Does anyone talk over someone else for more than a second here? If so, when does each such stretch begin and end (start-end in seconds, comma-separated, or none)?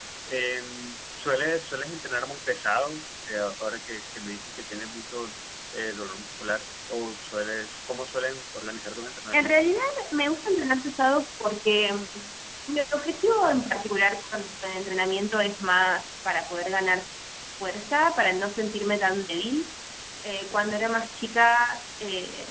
none